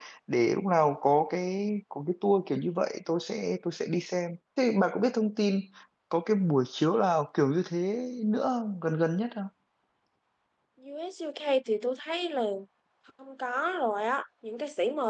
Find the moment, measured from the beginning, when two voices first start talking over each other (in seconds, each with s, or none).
none